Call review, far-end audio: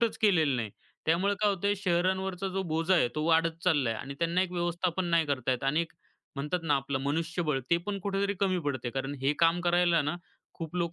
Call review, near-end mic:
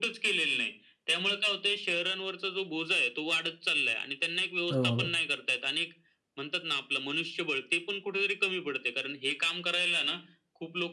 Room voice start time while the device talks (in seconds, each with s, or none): 4.7 s